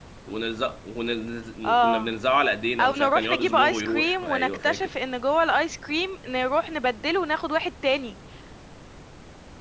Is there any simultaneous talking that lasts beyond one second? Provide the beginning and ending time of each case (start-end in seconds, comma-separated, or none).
2.8-4.9